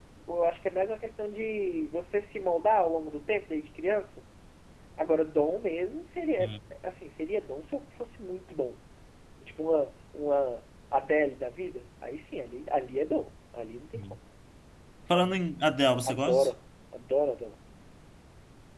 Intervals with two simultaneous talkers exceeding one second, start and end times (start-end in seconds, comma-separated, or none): none